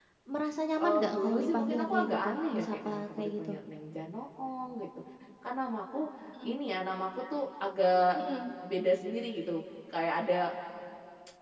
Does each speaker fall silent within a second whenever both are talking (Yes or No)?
No